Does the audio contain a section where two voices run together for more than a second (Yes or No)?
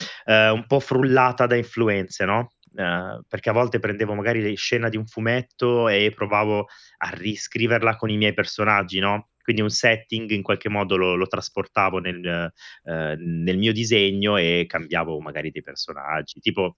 No